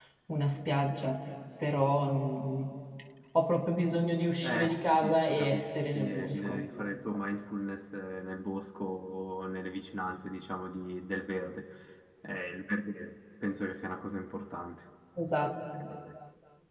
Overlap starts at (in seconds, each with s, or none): 4.4 s